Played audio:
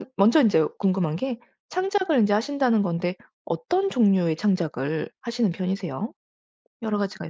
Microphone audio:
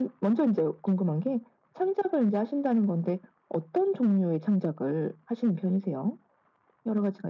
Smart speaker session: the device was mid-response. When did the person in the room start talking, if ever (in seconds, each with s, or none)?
none